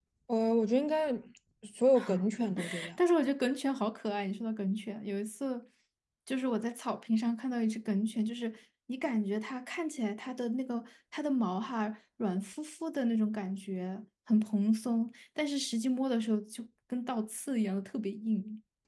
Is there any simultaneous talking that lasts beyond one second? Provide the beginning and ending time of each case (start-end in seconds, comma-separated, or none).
none